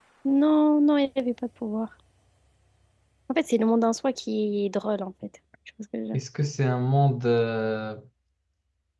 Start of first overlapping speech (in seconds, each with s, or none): none